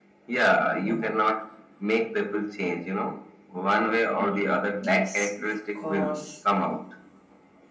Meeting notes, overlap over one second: present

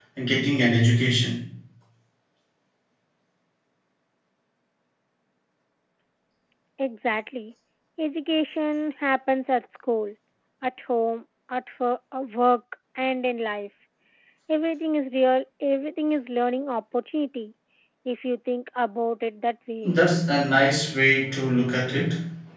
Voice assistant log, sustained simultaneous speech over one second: none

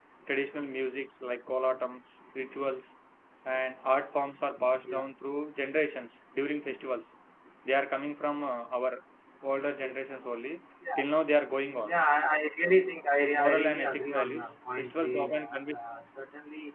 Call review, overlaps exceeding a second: present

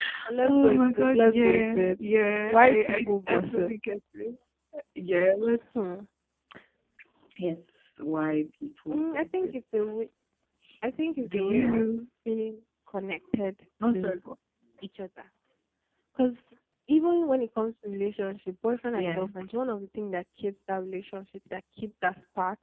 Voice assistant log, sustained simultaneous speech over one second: present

